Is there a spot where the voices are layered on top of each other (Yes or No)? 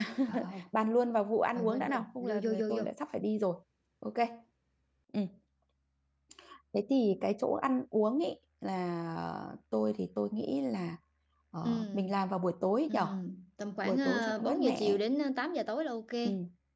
Yes